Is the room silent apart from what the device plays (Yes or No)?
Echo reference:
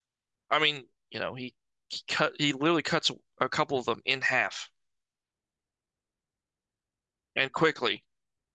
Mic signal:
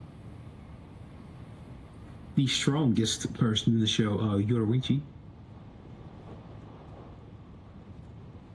No